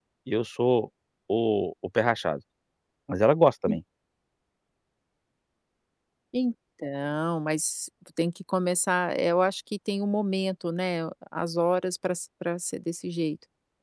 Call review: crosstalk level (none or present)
none